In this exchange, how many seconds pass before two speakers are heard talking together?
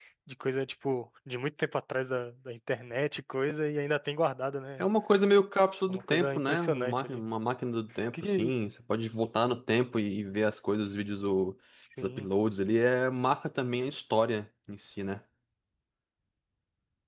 5.9 s

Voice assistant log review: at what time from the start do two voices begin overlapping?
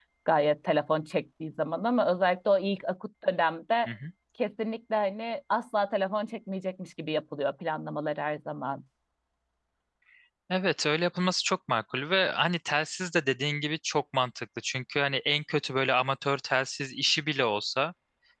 none

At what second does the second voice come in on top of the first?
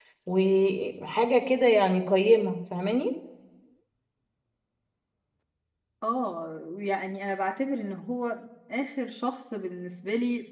none

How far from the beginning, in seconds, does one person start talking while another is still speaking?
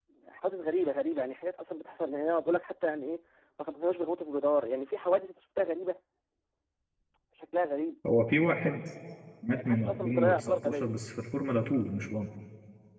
9.5 s

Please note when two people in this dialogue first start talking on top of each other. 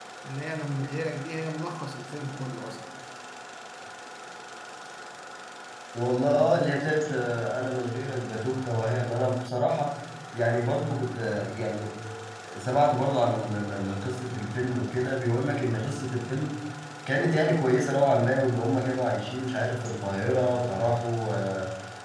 none

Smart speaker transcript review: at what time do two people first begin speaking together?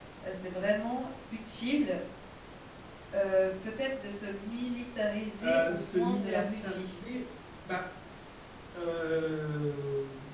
5.4 s

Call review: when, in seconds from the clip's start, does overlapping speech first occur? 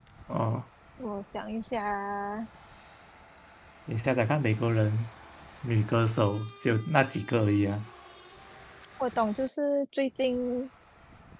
none

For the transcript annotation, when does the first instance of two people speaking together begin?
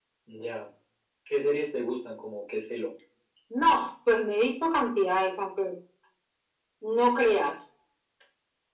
none

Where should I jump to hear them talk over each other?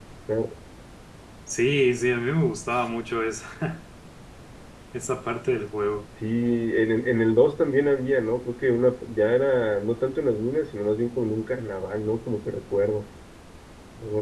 none

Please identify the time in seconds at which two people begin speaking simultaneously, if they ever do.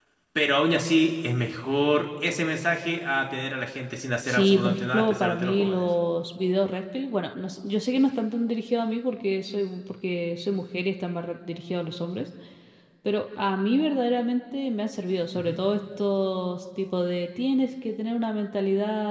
4.2 s

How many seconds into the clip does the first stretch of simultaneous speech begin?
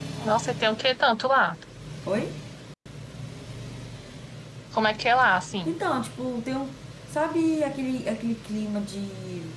none

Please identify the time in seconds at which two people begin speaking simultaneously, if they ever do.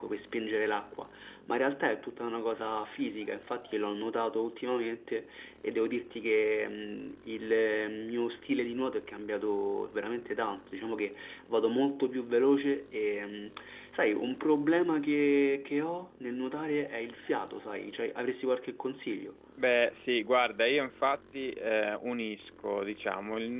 none

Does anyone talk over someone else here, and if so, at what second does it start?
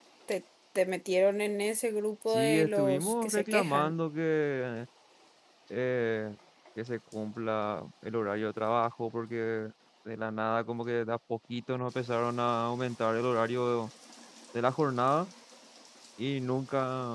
2.3 s

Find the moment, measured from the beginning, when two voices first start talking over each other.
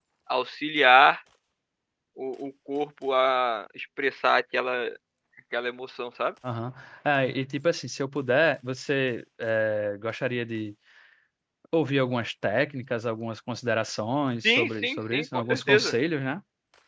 14.4 s

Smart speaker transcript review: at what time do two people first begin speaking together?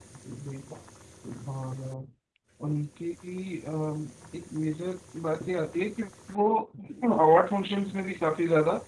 none

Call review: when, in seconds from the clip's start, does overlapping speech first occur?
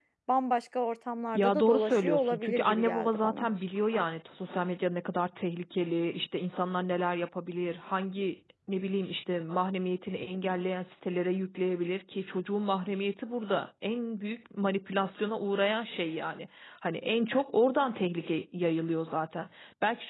1.3 s

